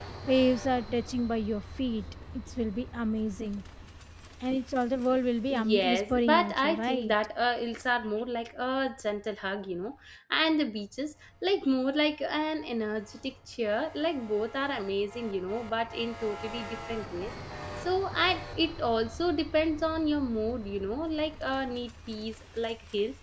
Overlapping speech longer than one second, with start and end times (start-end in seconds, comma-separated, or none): 5.5-7.1